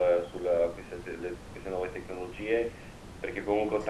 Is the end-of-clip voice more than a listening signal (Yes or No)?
No